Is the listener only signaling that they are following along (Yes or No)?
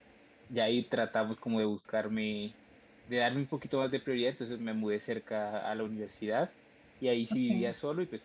Yes